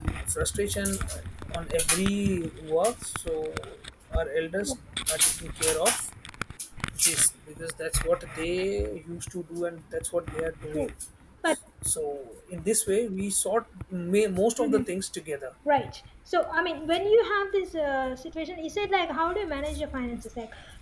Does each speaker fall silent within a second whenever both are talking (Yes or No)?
Yes